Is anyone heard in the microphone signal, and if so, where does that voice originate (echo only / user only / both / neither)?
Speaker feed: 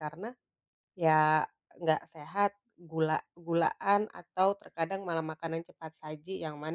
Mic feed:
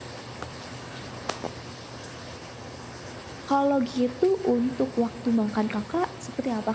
user only